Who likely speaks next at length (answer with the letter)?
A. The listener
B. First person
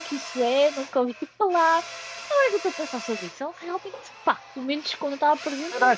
A